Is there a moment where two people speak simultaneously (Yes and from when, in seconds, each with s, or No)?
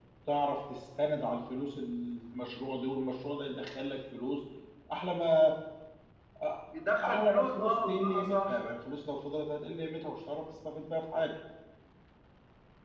Yes, from 7.0 s